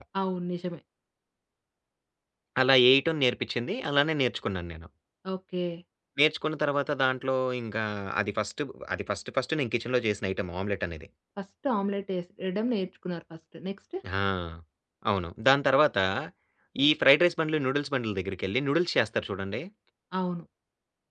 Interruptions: none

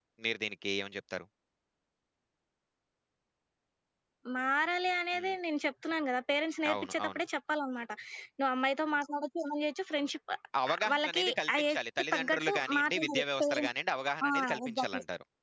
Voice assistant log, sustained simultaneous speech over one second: present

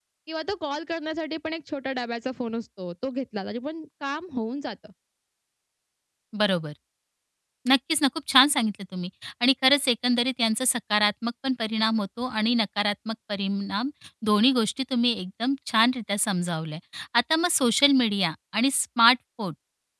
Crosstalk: none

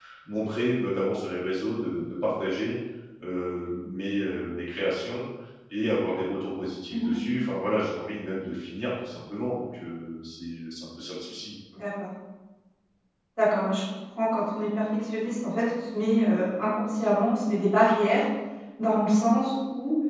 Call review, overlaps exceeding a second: none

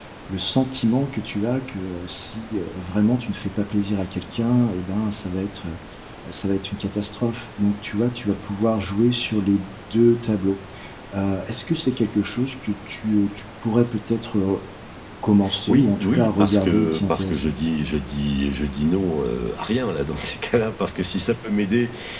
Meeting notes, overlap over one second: present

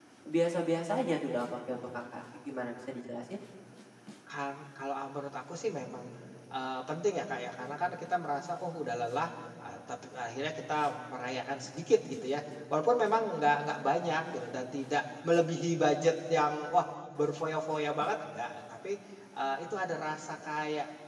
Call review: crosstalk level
none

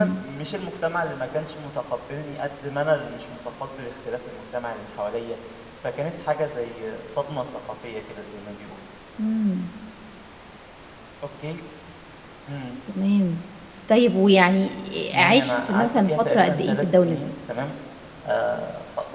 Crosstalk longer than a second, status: present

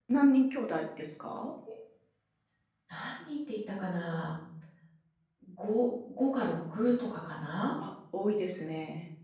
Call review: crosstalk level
none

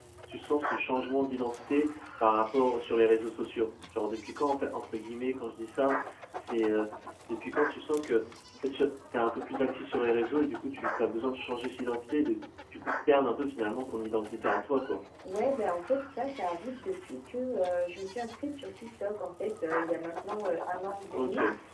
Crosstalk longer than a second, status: none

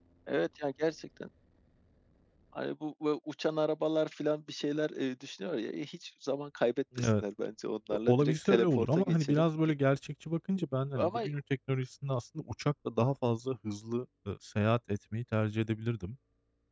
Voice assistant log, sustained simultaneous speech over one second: present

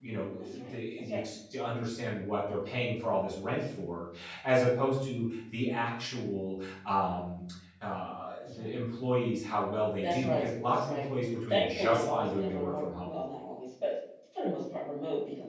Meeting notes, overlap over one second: present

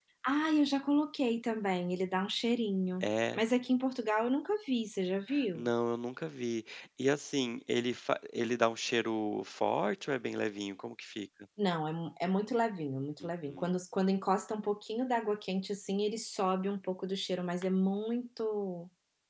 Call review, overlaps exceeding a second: none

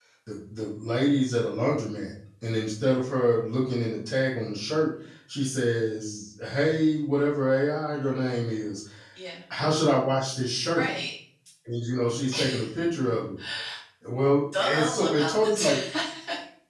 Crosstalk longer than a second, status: present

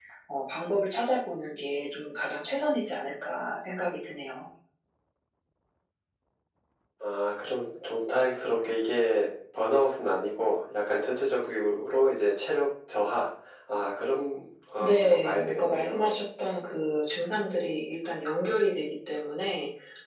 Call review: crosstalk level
present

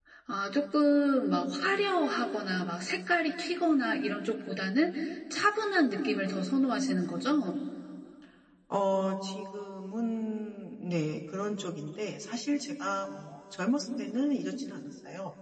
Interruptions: none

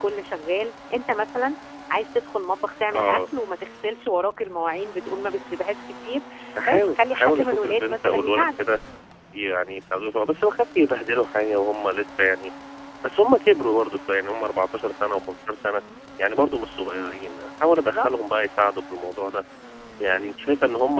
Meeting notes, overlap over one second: present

